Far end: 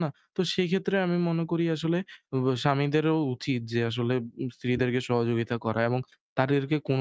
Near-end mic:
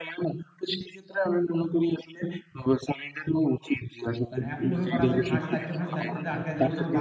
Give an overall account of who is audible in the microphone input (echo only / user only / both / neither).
both